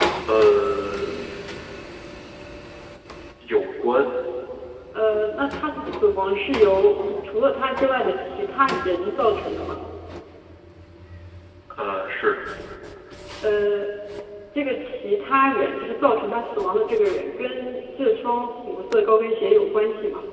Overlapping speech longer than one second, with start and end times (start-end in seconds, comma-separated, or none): none